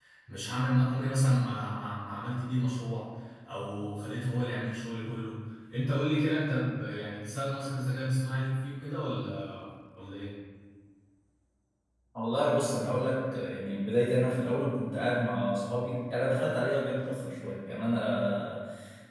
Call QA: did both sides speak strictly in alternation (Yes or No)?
Yes